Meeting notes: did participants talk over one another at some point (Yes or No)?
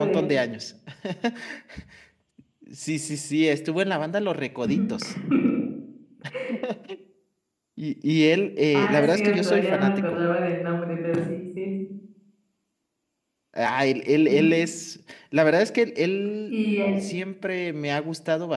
Yes